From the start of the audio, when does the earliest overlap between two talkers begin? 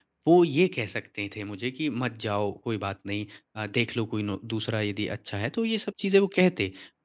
none

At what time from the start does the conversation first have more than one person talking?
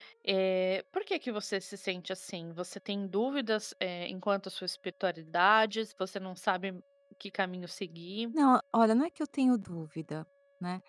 none

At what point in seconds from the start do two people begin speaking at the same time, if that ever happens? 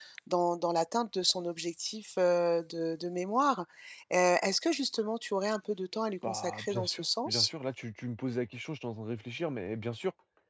6.2 s

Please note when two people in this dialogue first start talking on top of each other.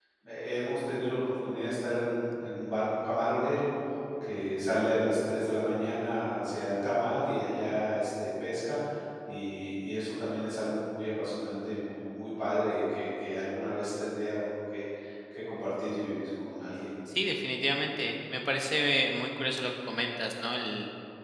none

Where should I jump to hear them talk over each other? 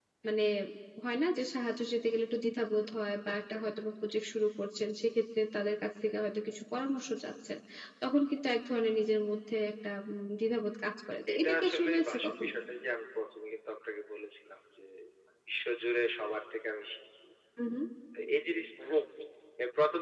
11.3 s

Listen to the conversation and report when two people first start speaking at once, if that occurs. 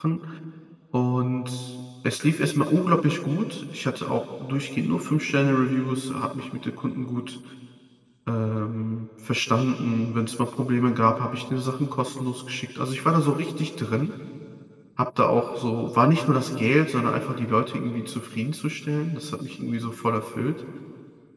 none

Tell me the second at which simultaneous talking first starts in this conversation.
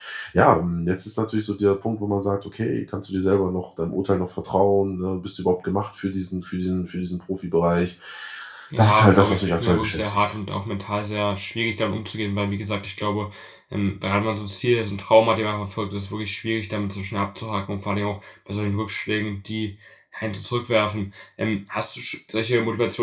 8.8 s

